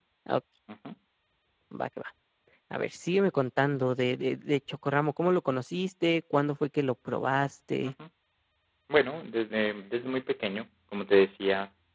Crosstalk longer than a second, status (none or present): none